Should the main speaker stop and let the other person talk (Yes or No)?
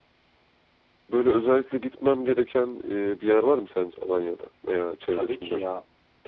Yes